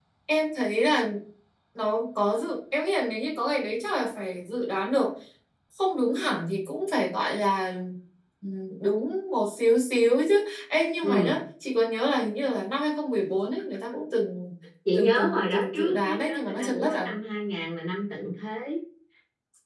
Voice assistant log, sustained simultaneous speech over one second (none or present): present